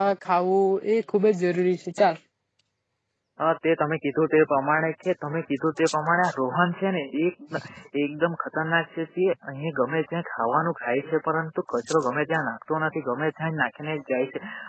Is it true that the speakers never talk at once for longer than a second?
Yes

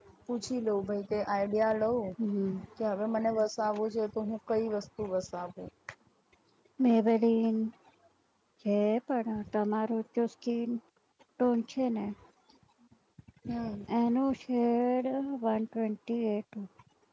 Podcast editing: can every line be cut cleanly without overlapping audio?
Yes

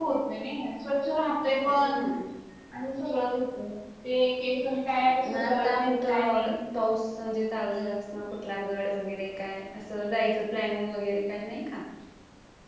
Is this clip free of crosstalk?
No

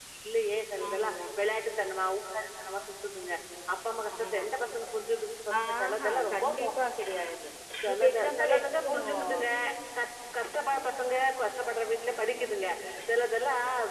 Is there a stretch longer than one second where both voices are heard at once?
Yes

